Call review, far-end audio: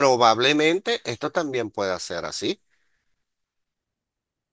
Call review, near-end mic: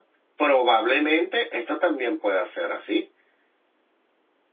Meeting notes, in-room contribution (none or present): none